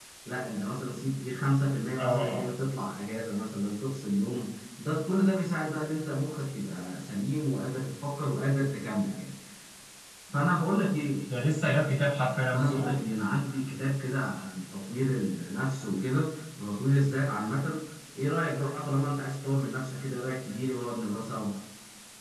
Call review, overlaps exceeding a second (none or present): none